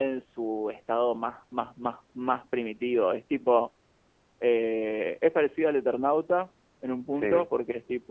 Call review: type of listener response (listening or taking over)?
listening